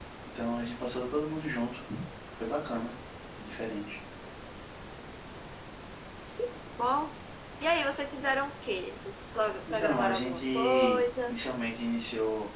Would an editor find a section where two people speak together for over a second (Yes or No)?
Yes